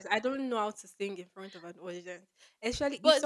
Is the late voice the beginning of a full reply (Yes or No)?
No